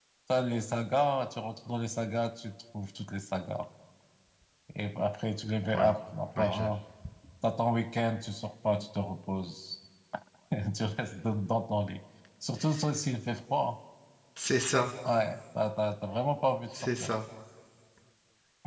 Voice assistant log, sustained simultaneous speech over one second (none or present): none